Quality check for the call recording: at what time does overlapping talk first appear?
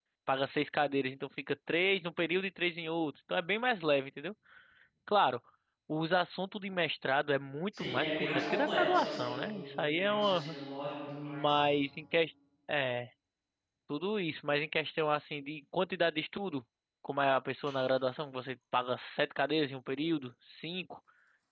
7.8 s

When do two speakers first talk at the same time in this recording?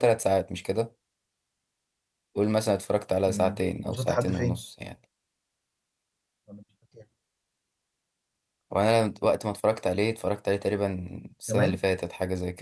3.3 s

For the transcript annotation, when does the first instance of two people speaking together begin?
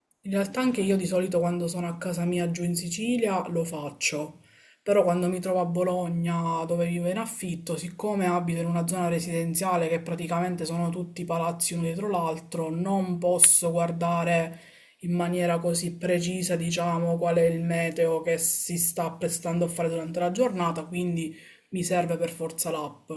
none

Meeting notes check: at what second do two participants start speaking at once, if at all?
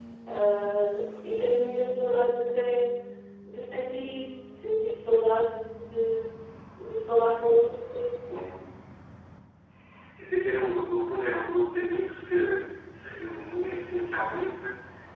none

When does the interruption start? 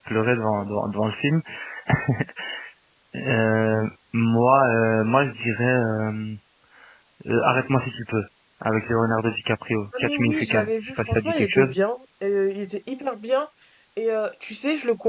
9.9 s

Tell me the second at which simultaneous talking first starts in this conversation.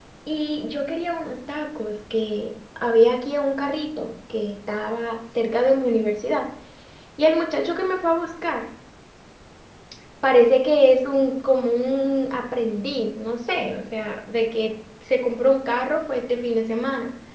none

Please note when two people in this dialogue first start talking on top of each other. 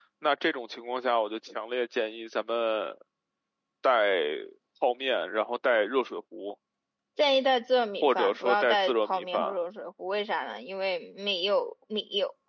8.0 s

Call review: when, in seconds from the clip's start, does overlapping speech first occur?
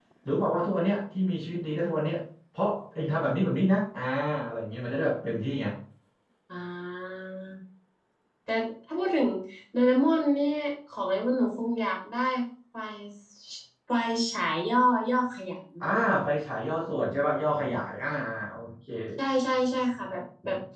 none

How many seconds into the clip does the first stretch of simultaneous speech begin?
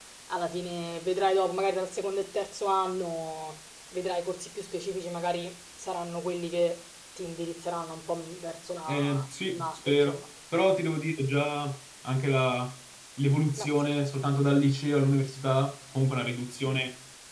8.9 s

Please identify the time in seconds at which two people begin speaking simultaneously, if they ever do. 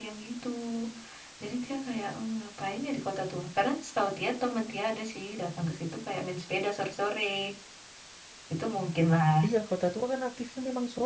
none

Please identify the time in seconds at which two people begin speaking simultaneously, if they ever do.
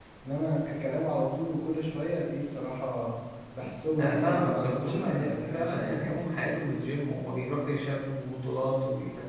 4.0 s

